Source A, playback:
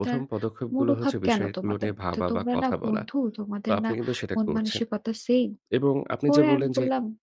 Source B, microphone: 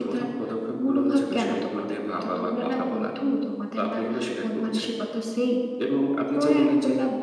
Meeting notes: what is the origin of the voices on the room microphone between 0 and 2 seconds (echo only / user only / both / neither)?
echo only